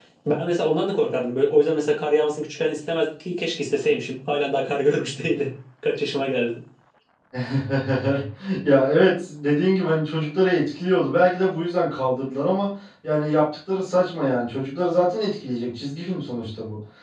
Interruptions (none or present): none